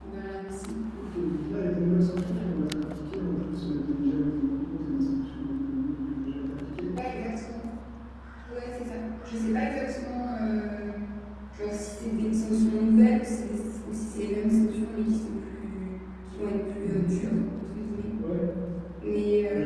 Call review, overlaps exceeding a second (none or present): none